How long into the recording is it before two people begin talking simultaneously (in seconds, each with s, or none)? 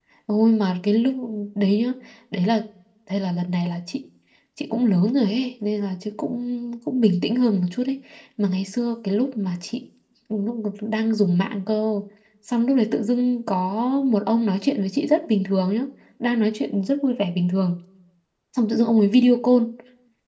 none